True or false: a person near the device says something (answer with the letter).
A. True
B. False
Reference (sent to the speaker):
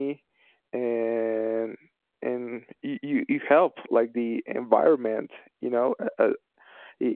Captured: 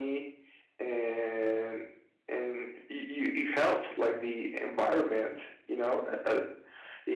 B